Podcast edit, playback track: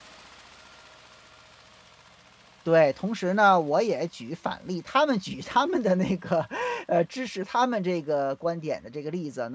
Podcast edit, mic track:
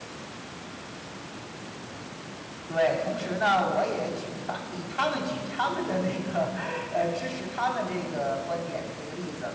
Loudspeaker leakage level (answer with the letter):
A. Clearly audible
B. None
A